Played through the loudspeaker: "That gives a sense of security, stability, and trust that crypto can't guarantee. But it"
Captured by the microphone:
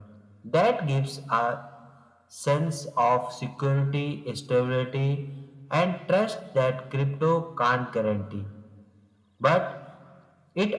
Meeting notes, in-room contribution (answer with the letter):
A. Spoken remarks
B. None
B